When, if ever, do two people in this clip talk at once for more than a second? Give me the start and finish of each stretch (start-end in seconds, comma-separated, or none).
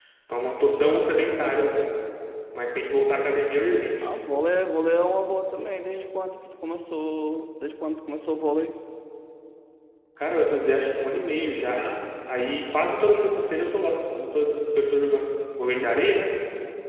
none